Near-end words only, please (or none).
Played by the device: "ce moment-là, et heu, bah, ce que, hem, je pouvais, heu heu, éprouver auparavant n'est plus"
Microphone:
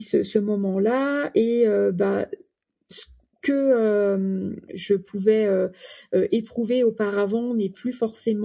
none